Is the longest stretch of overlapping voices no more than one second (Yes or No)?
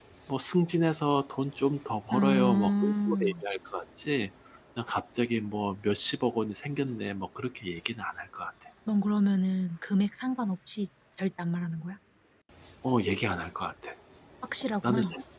No